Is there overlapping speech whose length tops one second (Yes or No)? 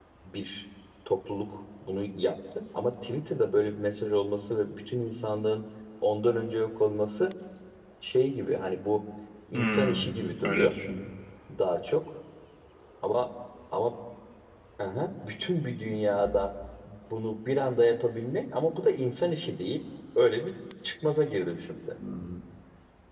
No